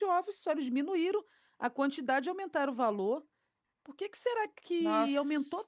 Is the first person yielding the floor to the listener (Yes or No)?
No